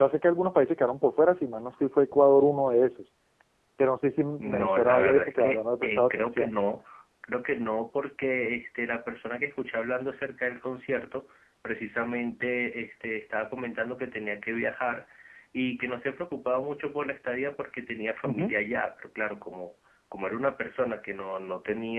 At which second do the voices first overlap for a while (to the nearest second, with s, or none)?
4 s